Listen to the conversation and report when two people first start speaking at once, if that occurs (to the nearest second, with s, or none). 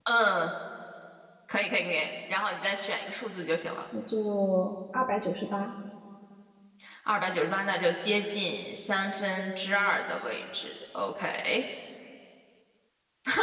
none